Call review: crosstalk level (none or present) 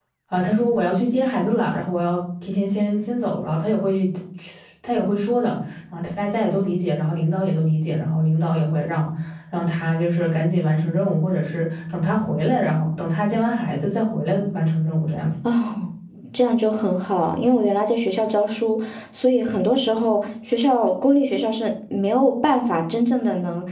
none